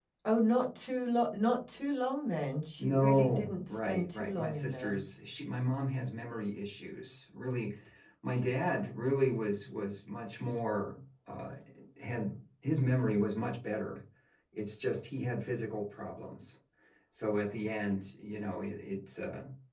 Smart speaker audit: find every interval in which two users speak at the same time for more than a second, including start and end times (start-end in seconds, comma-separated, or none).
2.8-5.0